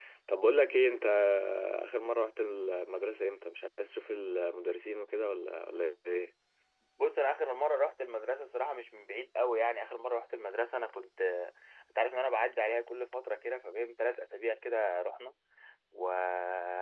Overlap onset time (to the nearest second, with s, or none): none